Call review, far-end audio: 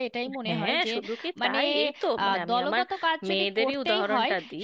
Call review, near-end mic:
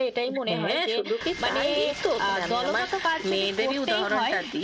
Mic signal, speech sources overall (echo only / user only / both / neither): echo only